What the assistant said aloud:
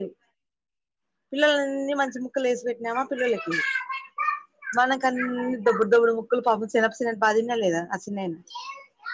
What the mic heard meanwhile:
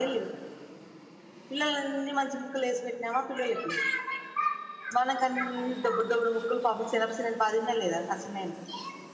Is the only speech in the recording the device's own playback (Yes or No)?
Yes